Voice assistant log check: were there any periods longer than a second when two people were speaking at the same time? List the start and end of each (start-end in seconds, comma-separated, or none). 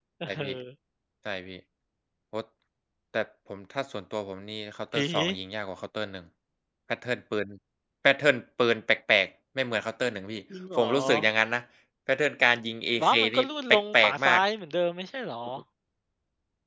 13.0-14.4